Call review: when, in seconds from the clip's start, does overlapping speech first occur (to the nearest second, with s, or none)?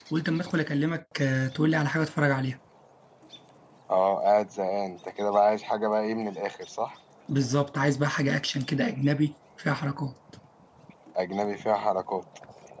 none